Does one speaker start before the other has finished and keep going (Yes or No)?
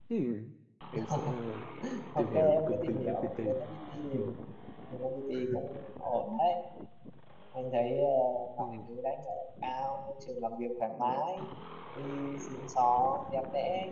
Yes